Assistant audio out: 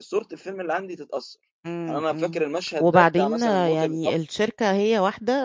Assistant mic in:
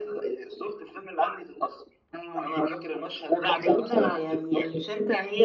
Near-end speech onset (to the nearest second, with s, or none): 4 s